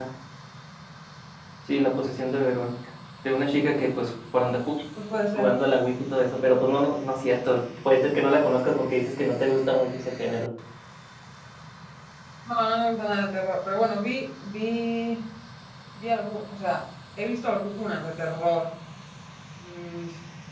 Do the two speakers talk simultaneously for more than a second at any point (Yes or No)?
No